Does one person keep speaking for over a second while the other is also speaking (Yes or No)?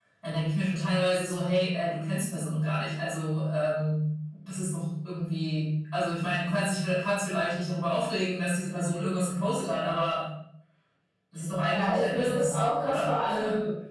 Yes